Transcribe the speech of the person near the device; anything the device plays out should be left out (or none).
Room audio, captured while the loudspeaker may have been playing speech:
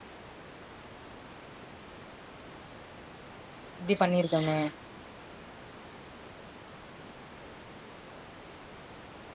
இப்டி பண்ணிருக்கமே